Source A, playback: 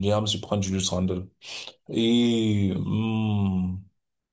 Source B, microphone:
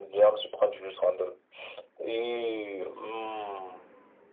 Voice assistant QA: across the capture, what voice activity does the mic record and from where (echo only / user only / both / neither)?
echo only